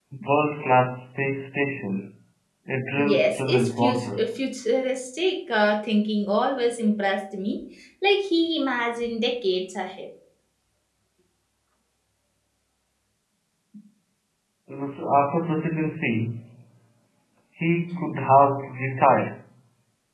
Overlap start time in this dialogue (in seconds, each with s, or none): 3.0 s